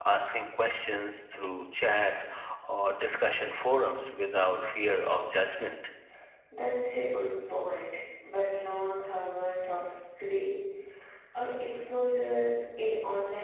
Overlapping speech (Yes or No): No